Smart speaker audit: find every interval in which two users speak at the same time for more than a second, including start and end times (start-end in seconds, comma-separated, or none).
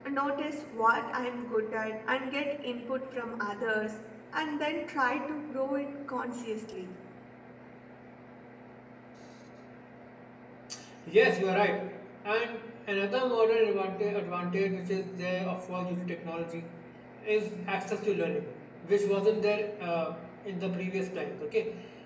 none